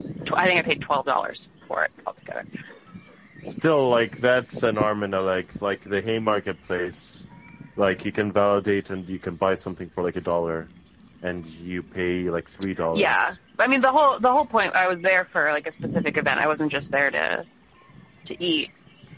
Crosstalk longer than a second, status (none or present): none